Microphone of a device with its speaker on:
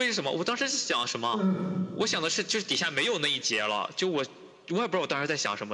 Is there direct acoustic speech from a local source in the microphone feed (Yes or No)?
Yes